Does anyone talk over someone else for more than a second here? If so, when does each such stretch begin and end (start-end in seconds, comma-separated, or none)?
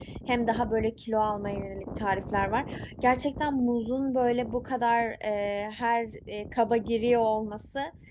none